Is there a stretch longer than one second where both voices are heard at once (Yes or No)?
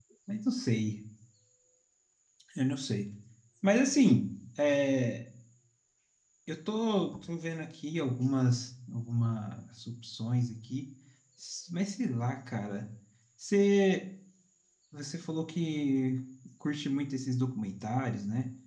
No